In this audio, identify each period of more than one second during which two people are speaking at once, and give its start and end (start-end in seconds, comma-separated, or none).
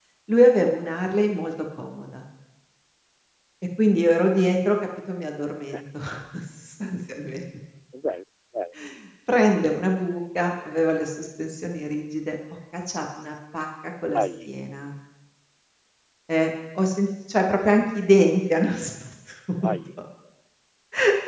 none